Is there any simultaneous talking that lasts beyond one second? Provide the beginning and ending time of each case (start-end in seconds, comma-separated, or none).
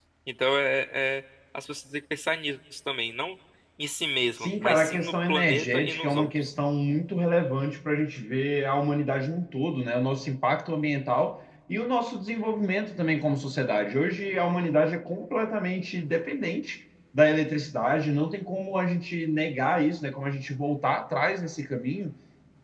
4.4-6.5